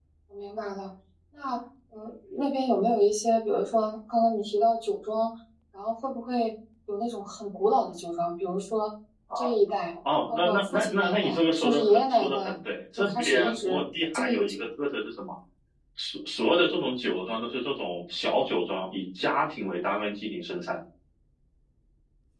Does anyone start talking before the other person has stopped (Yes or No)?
Yes